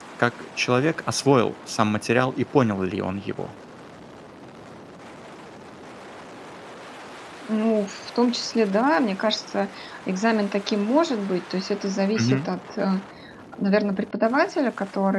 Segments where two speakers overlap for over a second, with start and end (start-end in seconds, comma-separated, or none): none